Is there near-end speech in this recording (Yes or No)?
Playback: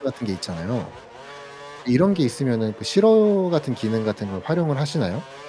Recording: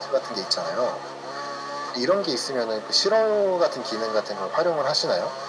No